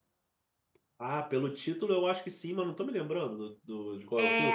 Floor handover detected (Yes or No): Yes